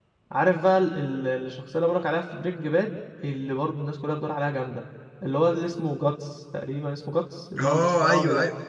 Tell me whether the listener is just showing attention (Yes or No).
No